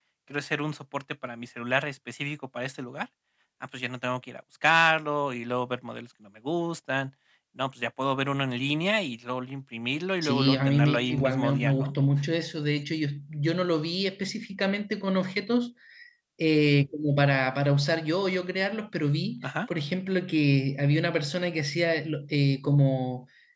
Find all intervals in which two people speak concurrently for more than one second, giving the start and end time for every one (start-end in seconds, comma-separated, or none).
10.2-11.9